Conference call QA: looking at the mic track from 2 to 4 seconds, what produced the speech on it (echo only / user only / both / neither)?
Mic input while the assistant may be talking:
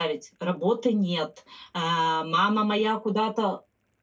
user only